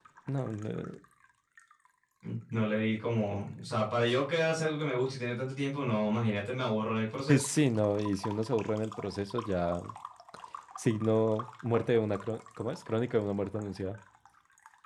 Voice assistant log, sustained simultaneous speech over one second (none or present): none